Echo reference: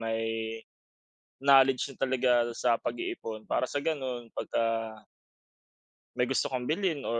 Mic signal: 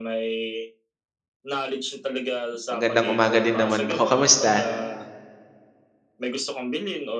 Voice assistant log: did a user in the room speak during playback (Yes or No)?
Yes